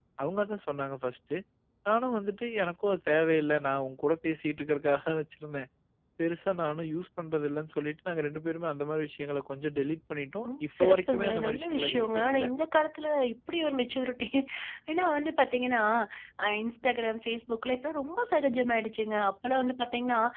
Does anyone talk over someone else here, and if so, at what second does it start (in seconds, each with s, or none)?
10.4 s